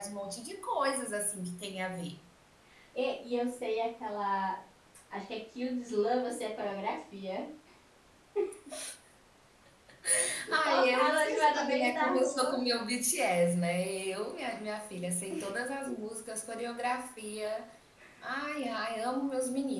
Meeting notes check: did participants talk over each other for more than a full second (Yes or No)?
Yes